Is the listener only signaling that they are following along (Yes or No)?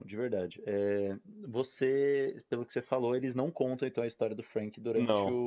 Yes